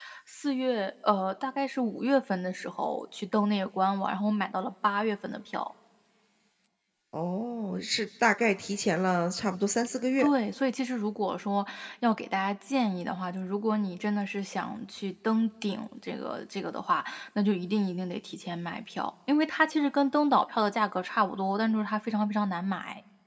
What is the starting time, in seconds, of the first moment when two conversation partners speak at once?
none

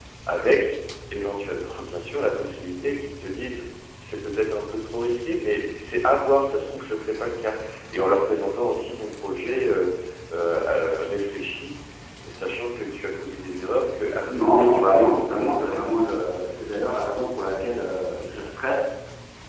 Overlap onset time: 14 s

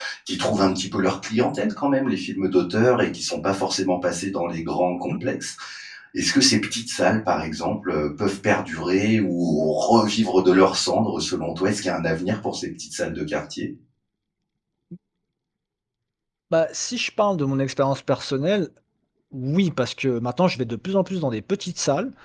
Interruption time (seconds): none

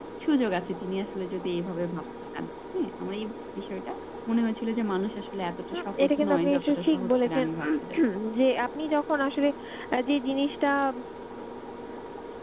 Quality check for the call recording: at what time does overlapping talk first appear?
6 s

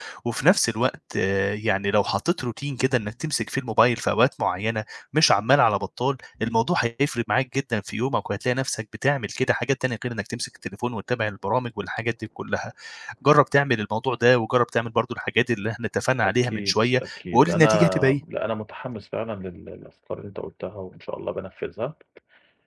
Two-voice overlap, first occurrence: 16 s

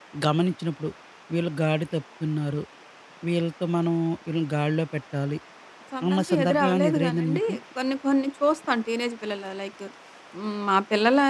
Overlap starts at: 6 s

